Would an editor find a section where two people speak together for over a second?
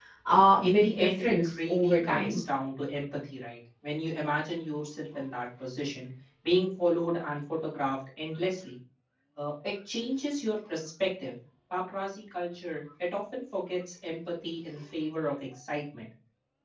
Yes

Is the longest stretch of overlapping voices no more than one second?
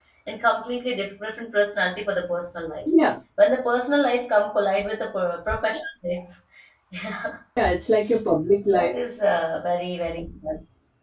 Yes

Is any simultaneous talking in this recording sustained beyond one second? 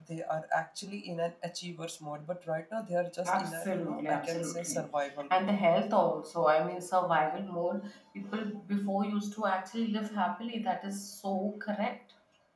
Yes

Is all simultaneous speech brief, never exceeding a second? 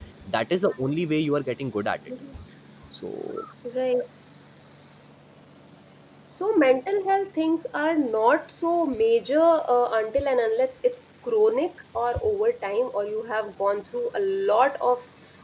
Yes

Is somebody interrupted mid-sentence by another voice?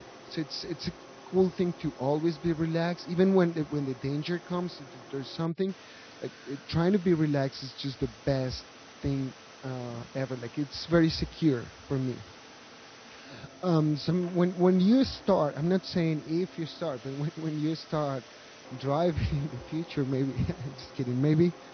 No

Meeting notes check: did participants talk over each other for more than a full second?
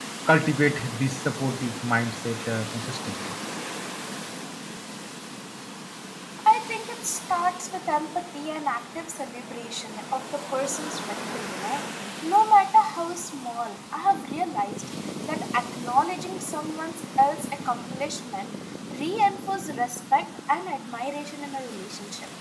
No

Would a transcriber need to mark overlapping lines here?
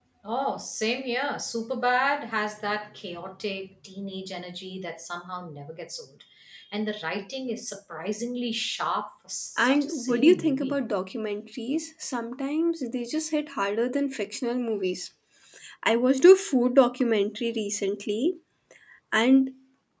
Yes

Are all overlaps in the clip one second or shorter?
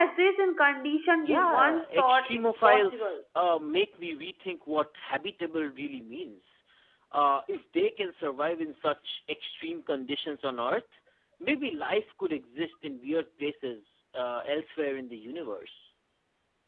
No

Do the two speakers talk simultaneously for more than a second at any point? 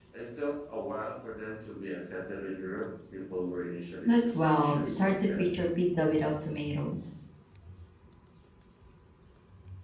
Yes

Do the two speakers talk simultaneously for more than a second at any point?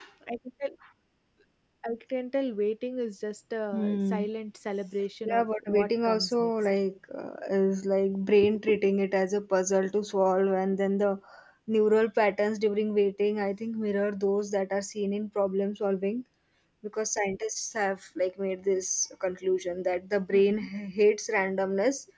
Yes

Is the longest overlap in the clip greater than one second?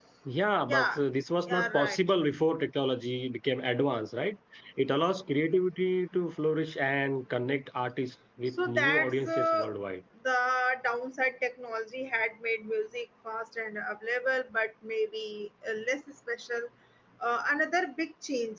Yes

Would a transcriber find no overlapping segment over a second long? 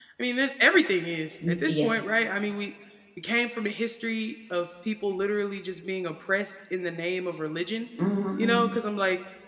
Yes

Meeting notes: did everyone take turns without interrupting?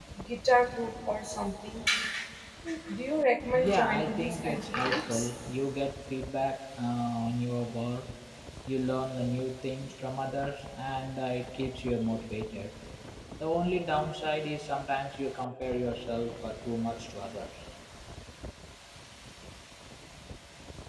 No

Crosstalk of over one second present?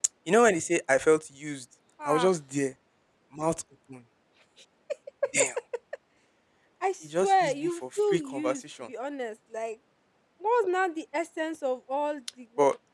Yes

